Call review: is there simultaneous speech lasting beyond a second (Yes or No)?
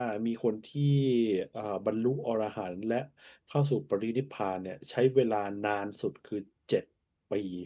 No